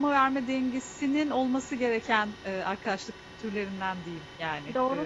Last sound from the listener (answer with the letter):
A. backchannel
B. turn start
B